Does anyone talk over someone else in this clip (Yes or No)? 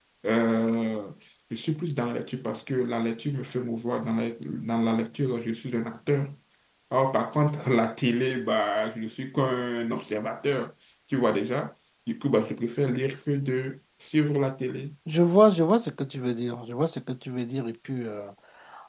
No